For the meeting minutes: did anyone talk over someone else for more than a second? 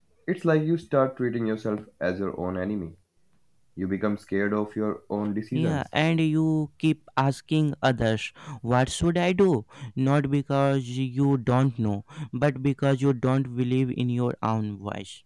No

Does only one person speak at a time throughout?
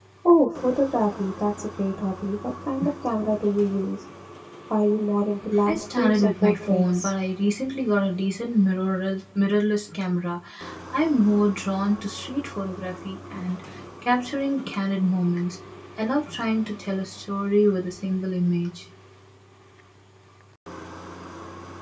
No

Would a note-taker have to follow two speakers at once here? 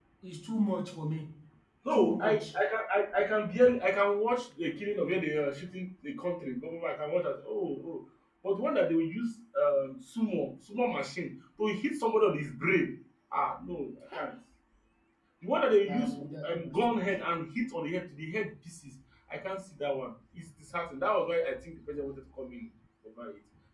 Yes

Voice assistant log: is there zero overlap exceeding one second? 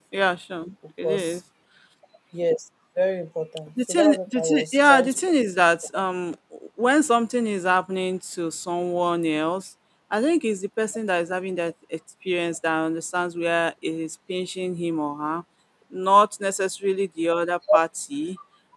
No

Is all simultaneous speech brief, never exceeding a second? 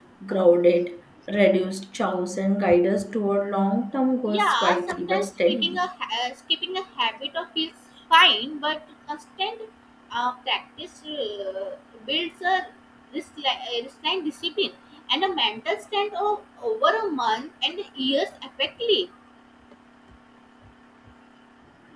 No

